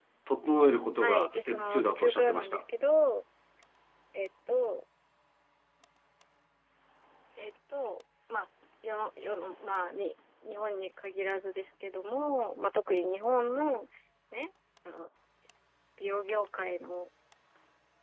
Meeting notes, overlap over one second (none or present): present